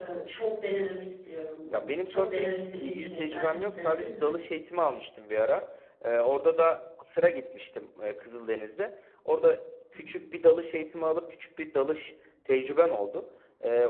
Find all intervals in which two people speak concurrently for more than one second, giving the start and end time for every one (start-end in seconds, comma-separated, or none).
1.7-4.4